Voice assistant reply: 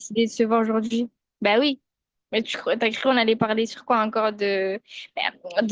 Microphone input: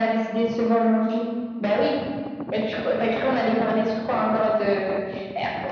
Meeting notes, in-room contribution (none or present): none